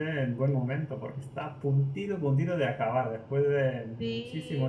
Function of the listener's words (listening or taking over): taking over